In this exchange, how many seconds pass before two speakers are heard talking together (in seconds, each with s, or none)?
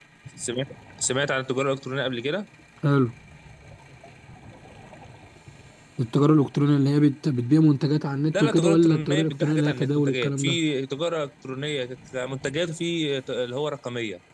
8.3 s